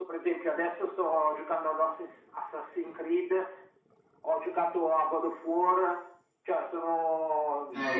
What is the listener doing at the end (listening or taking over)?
taking over